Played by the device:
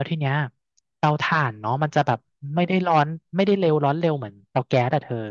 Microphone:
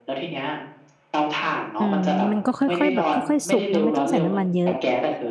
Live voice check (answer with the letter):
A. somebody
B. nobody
A